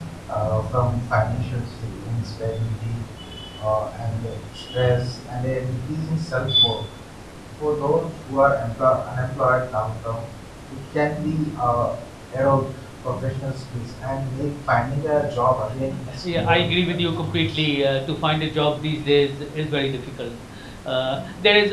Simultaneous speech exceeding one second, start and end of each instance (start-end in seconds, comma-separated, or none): 16.3-17.6